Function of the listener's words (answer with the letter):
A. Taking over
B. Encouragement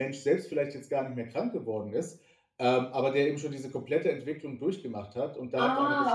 B